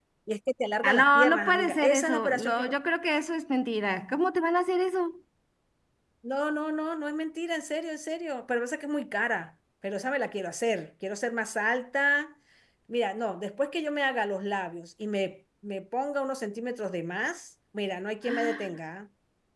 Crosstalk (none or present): present